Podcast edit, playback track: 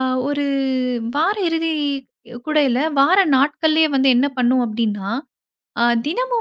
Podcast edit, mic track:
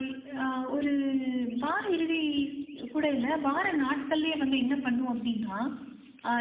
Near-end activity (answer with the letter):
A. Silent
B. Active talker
A